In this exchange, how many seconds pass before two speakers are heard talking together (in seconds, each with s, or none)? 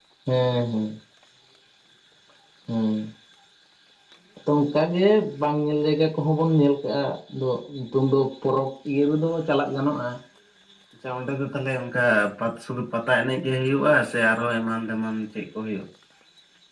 none